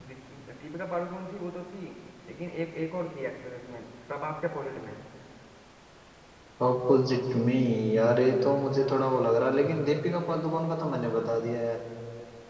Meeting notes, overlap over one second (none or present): none